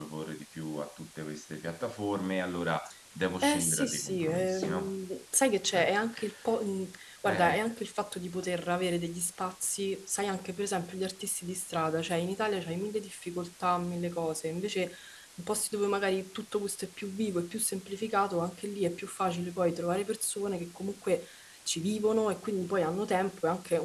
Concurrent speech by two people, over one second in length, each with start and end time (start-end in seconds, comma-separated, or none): 3.4-4.9